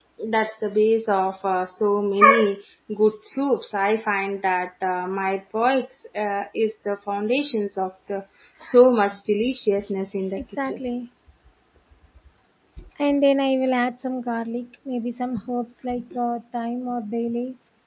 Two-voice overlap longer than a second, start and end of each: none

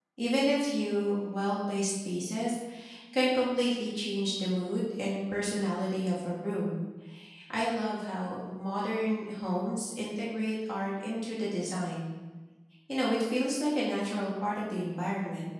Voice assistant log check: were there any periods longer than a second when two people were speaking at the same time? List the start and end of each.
none

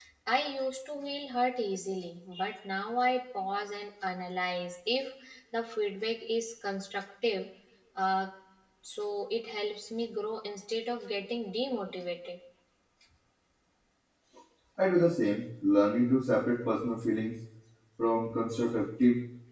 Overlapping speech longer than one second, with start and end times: none

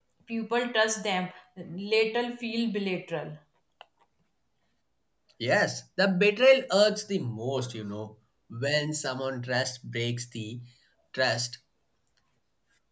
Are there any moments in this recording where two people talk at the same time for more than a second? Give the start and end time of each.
none

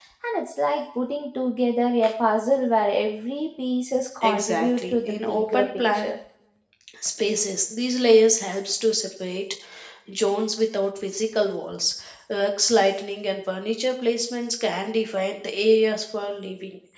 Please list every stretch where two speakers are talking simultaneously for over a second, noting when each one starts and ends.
4.2-6.1

